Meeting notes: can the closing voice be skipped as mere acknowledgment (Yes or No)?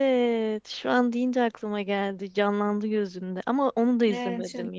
No